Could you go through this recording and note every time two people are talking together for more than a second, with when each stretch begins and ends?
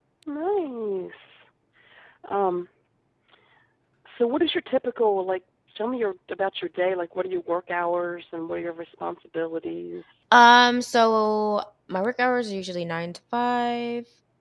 none

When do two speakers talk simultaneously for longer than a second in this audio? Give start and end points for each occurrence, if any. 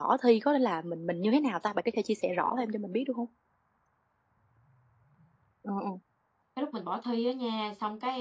none

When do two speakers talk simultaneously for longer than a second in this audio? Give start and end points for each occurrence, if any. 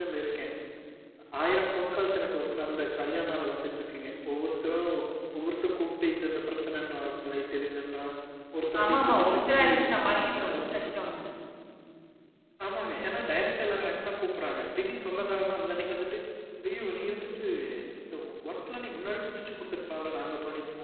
8.8-10.8

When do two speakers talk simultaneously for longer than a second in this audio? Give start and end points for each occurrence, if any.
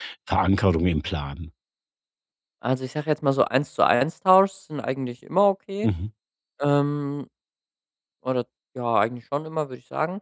none

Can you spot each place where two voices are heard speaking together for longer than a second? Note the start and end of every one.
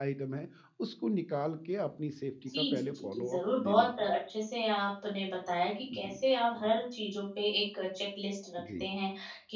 2.6-4.1

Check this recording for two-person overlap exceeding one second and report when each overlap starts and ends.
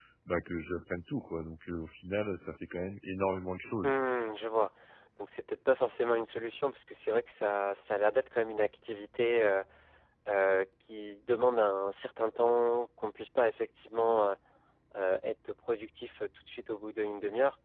none

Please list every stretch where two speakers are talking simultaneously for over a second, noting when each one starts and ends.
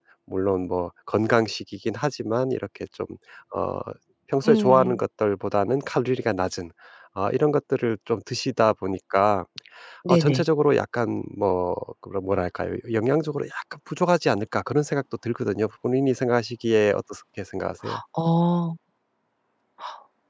none

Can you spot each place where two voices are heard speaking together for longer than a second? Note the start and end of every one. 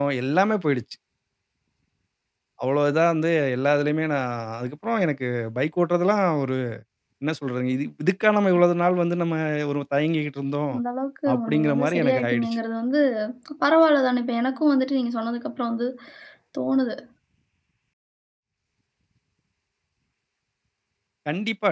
11.3-12.6

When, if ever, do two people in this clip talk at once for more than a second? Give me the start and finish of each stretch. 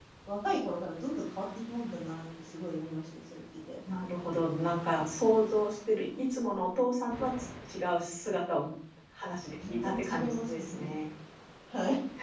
9.7-11.0

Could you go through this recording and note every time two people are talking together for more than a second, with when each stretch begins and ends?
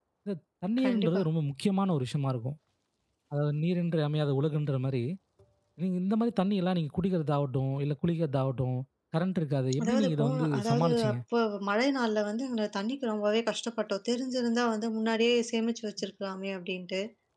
9.8-11.2

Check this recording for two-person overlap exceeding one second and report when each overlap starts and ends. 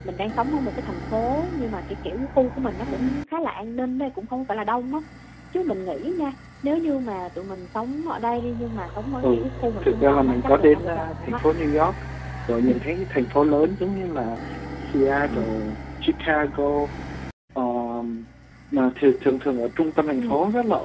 9.8-11.4

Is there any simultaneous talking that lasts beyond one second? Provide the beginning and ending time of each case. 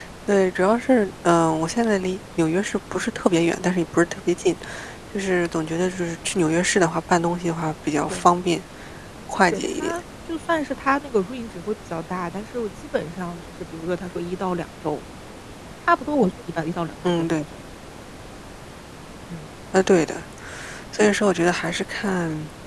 none

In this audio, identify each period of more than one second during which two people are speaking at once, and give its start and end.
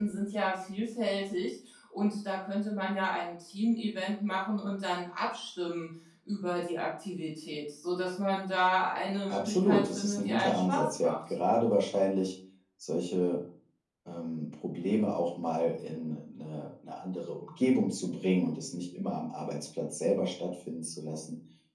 9.3-11.1

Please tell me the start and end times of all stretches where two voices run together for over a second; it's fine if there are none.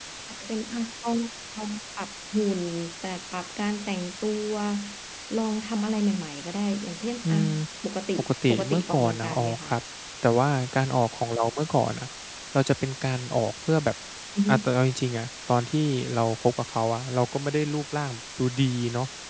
8.2-9.7

